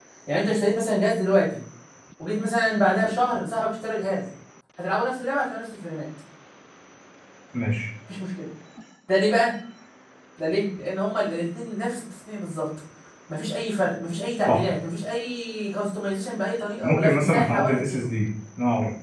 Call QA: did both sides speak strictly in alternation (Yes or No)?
No